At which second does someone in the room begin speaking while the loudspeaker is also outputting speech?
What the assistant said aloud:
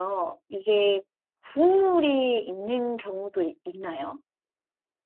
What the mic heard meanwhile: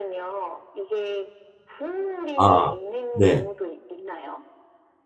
2 s

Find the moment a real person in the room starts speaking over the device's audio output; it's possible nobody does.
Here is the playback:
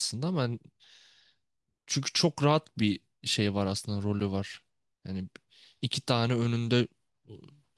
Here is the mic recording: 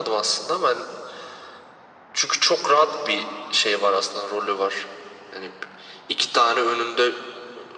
none

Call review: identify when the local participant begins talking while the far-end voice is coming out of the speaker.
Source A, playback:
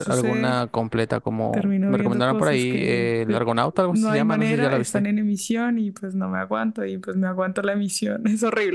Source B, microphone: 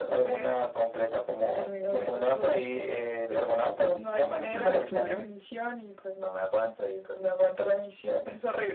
5 s

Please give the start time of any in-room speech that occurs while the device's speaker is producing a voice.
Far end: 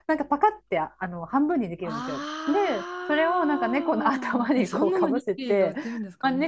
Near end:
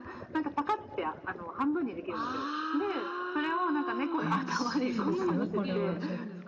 4 s

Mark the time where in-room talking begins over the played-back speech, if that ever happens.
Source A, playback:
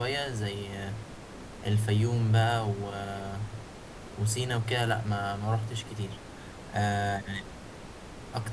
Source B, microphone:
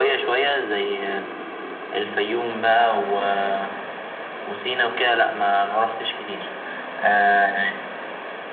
none

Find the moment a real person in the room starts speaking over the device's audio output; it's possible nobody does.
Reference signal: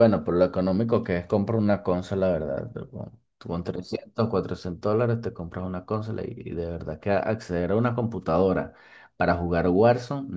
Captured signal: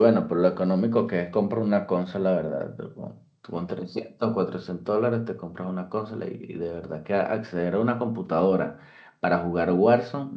none

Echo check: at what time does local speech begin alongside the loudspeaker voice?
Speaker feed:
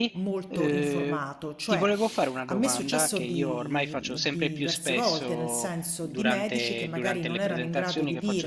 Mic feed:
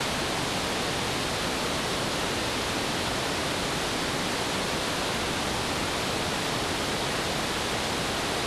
none

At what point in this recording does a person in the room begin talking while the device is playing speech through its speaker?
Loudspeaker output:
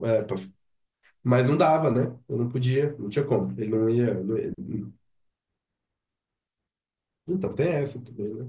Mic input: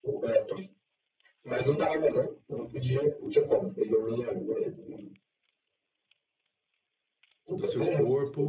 8 s

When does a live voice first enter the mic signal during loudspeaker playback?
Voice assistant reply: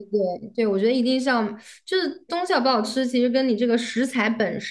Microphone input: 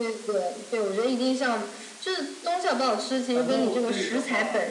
3 s

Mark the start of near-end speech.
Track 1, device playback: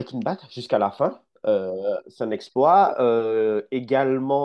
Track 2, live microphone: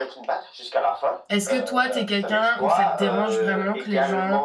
1 s

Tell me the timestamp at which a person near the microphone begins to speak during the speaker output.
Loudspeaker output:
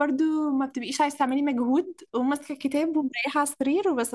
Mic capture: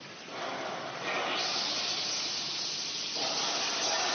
none

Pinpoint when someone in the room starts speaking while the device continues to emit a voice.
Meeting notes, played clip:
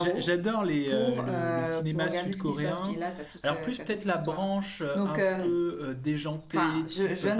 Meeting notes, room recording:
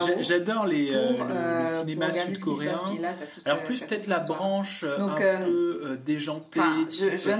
none

